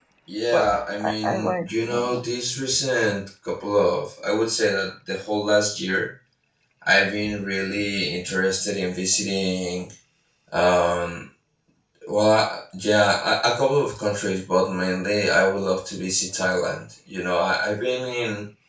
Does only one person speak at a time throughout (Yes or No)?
No